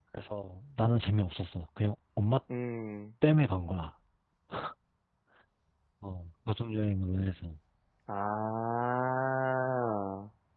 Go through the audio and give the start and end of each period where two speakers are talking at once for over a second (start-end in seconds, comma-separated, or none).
none